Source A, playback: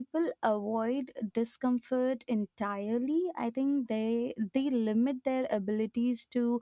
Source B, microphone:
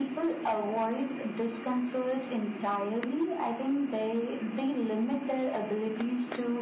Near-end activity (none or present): none